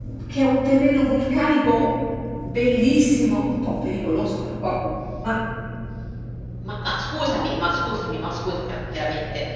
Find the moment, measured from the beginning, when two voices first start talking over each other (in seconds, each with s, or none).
none